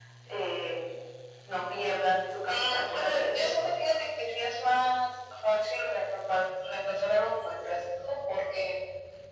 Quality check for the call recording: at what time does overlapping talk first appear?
2.5 s

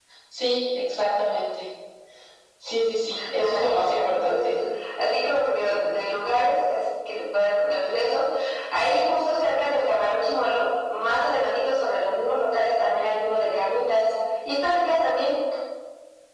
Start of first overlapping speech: 3.4 s

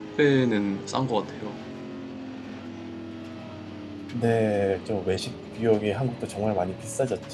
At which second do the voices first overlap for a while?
none

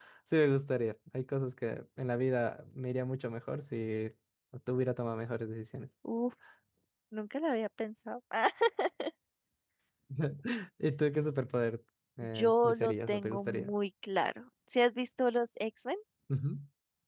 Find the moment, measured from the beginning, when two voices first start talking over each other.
12.4 s

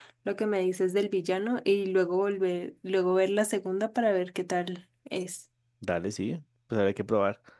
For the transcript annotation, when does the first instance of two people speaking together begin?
none

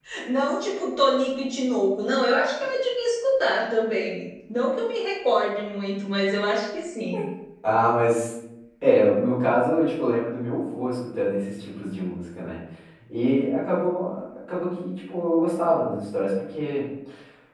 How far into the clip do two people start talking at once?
none

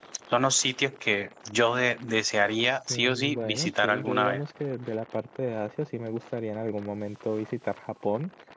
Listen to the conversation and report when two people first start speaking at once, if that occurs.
2.9 s

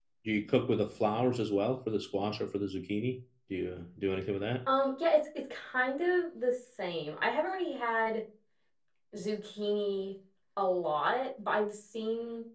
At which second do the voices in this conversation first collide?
none

